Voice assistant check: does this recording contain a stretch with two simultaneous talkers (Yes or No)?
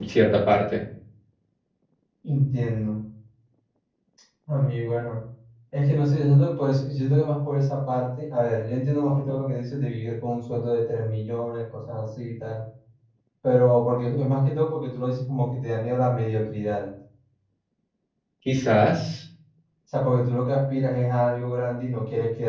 No